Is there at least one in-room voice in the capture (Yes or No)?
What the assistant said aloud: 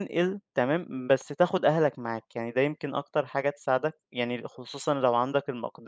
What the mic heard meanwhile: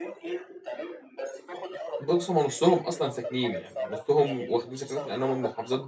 Yes